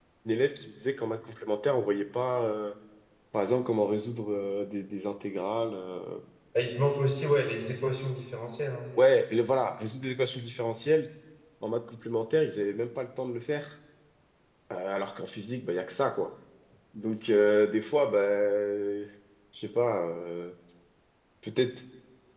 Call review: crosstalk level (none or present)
none